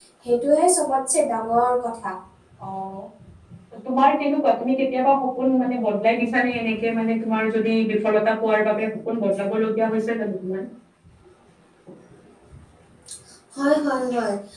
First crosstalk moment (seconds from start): none

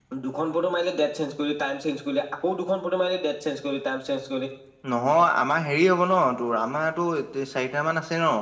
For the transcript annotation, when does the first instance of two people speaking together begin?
none

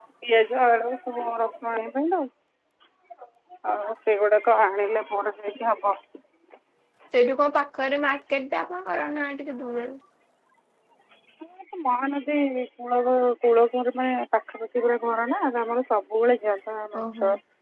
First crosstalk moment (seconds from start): none

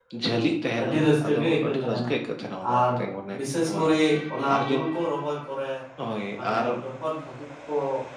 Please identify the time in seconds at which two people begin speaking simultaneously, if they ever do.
1 s

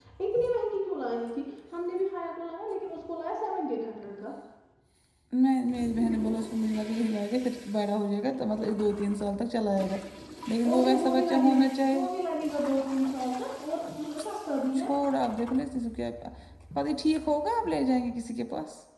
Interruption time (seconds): 11 s

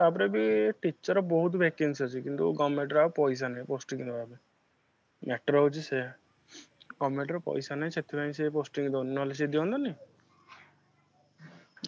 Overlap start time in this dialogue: none

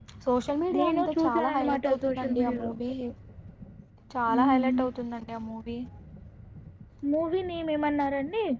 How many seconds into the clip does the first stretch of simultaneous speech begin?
1 s

